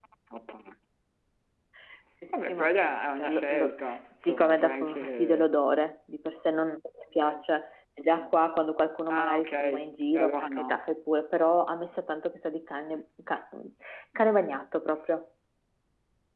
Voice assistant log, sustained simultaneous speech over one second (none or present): present